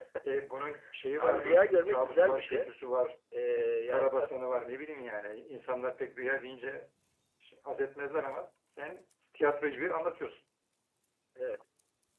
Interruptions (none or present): present